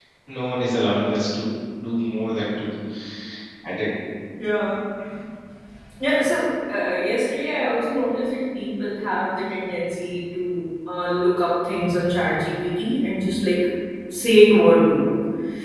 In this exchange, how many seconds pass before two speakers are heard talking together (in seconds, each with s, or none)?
none